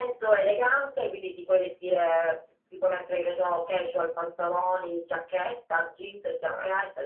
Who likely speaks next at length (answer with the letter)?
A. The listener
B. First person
A